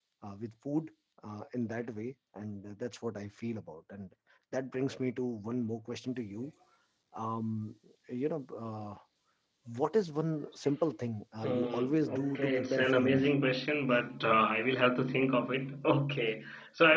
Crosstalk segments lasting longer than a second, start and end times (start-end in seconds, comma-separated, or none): 11.4-13.3